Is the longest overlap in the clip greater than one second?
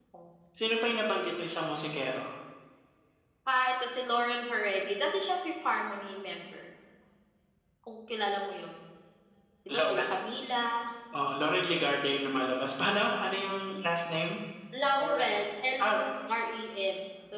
No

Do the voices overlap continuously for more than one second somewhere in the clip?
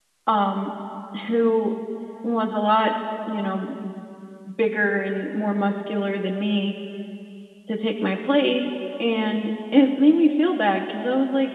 No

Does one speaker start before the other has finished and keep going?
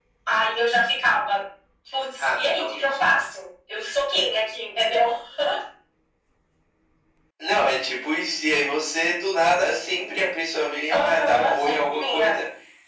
Yes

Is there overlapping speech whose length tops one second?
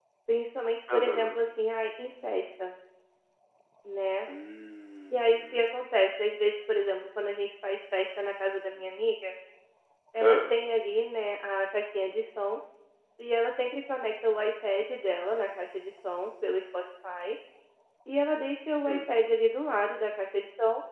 No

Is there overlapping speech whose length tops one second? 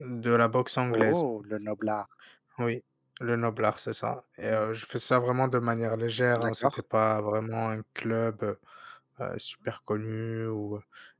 No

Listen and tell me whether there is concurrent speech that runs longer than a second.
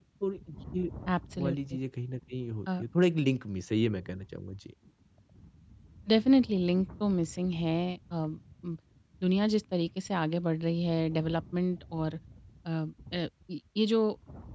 No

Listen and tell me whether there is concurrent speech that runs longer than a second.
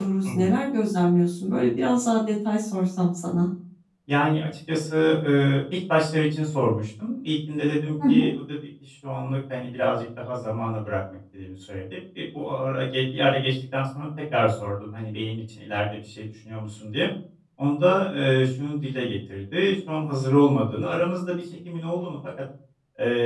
No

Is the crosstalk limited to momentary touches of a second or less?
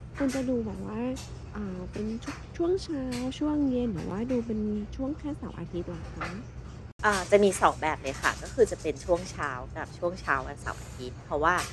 Yes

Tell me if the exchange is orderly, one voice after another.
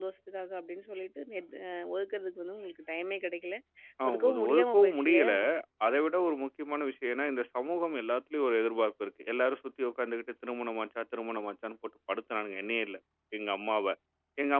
No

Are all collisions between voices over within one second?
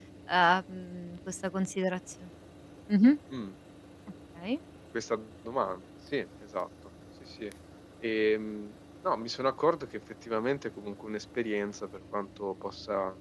Yes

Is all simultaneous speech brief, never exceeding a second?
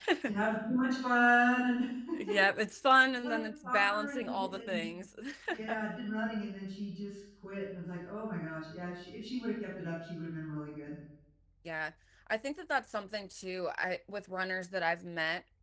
No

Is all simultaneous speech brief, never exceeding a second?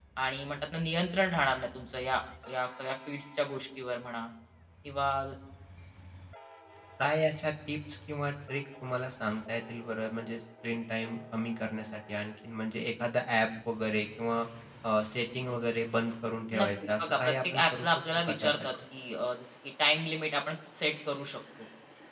No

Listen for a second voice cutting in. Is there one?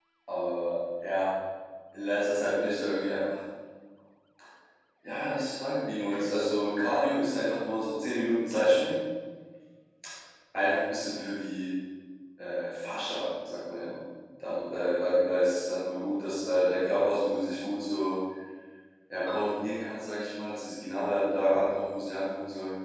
No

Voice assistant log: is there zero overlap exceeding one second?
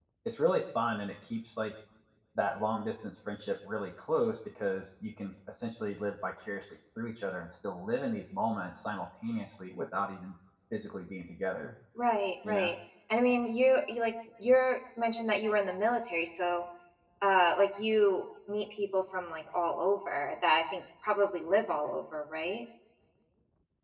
Yes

